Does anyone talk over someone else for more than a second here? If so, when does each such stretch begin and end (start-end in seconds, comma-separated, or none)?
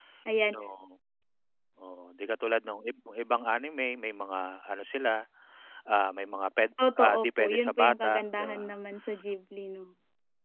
7.0-8.6